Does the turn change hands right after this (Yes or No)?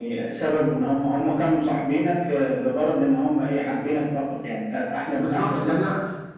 Yes